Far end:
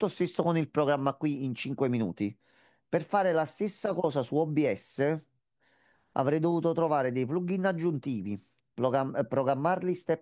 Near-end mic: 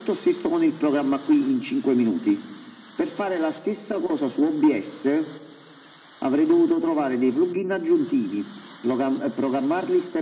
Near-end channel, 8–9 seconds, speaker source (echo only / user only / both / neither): echo only